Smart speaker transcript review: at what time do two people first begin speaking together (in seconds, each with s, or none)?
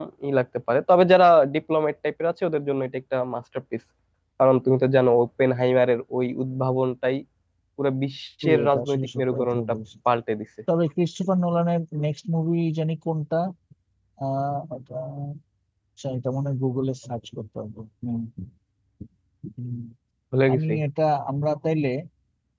8.4 s